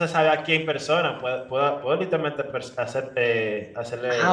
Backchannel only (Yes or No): No